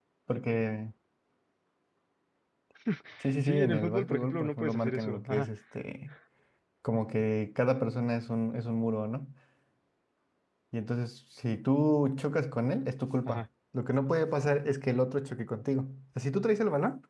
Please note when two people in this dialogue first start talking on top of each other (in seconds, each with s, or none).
3.5 s